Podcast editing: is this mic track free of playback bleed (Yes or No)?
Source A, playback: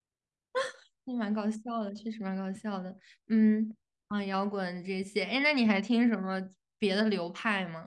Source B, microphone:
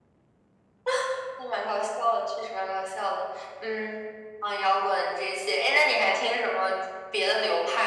No